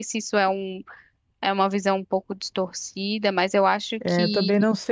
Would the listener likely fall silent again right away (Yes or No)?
No